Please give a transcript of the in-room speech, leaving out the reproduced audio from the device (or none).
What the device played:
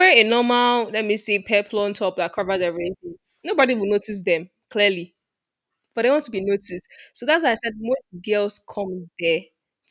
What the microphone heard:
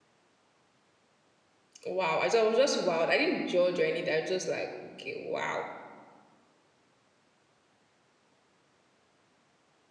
wow. I, just, I was just wild. I didn't judge or anything. I was just like, okay, wow.